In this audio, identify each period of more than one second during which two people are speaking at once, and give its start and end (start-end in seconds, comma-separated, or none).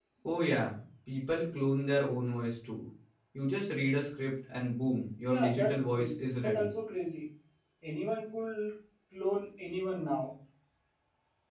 5.3-6.7